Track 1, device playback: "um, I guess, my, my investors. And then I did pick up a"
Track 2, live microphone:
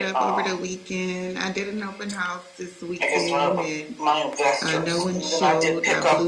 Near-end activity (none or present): present